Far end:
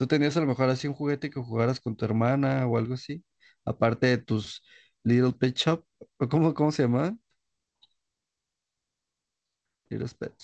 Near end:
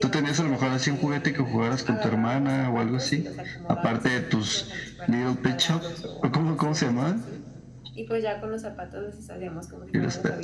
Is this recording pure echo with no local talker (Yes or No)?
No